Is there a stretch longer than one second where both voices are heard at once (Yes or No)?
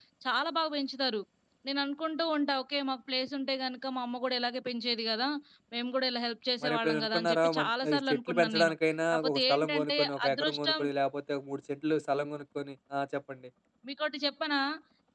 Yes